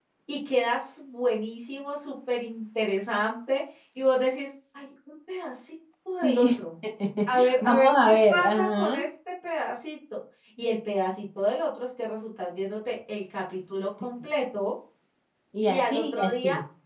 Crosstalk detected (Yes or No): Yes